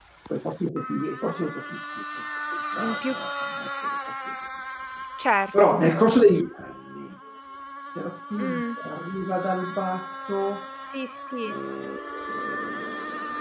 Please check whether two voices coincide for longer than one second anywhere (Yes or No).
No